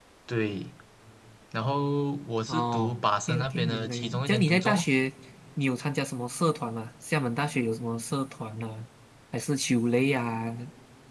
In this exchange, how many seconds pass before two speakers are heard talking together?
2 s

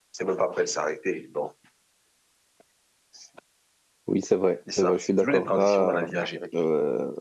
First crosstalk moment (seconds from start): 5 s

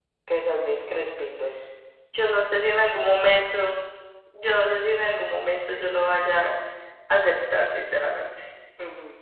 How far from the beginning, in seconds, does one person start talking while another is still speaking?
none

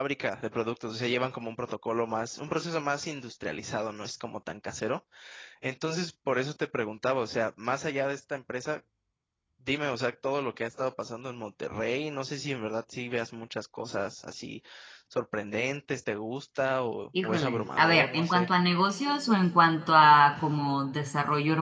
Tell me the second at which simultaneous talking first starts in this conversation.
17 s

